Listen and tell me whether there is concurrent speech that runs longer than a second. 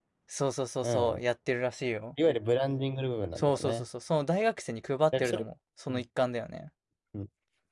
No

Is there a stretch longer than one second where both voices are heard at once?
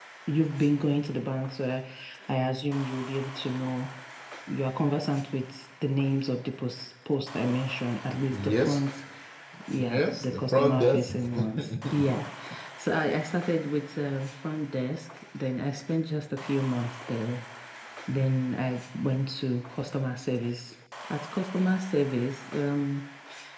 Yes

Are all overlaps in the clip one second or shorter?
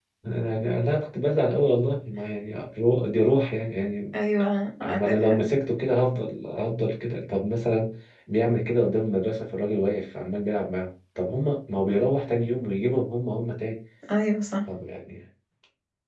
Yes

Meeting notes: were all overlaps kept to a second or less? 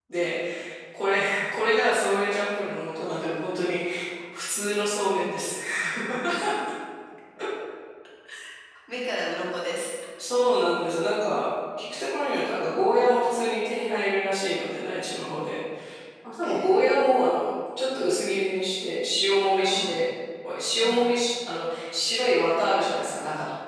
Yes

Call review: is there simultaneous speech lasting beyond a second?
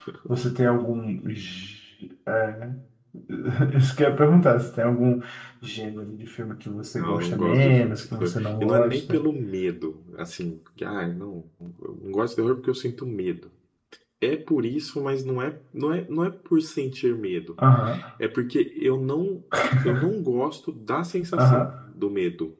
Yes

